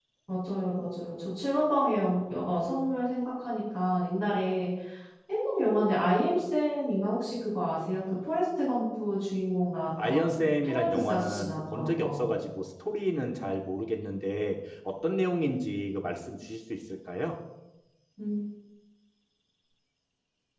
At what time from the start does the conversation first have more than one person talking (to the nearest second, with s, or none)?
10 s